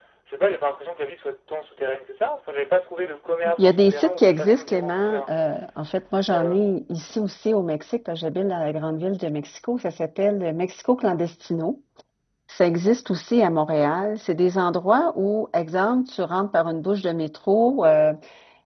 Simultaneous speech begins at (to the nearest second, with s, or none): 4 s